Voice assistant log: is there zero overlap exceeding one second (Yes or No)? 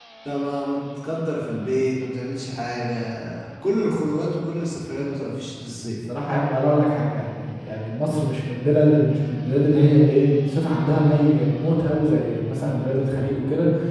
Yes